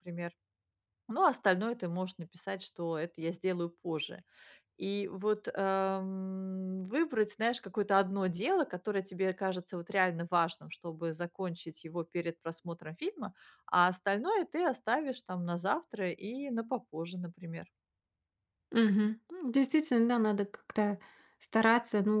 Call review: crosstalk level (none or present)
none